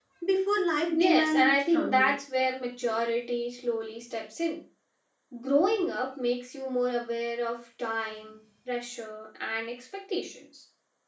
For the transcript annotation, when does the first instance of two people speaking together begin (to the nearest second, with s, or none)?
1 s